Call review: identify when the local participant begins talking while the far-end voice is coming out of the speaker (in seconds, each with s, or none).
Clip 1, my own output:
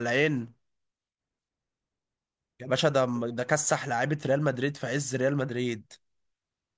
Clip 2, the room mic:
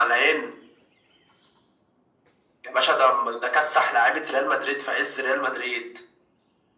none